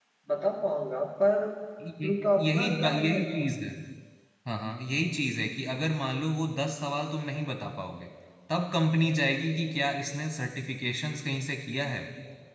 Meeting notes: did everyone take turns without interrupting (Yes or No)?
No